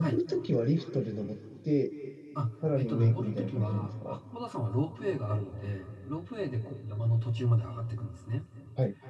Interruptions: present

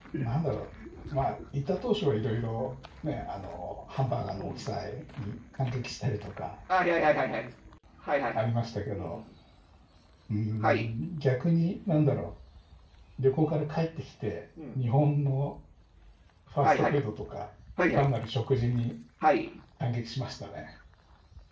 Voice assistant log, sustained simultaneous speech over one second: none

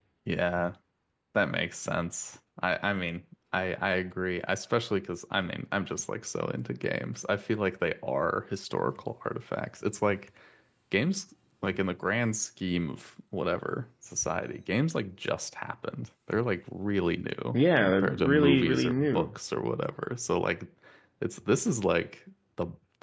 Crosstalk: present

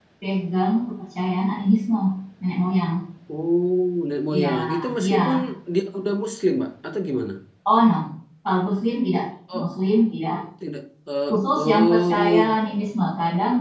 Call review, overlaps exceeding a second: present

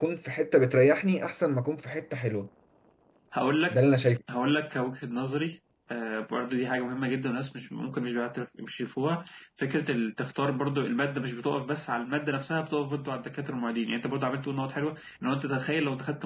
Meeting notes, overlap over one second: none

